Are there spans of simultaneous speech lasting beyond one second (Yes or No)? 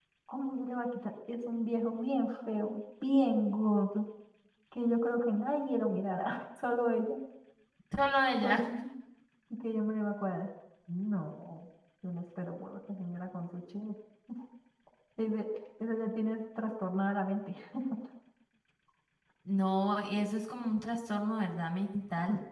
No